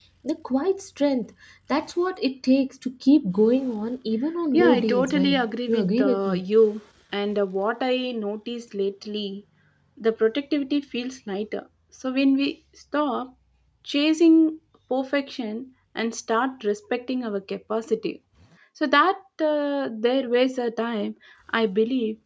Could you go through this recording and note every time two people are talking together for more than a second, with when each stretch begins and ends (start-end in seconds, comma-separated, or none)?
4.5-6.4